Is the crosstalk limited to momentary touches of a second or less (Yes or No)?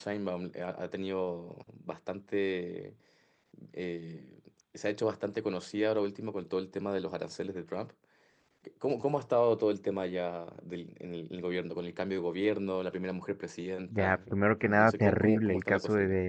No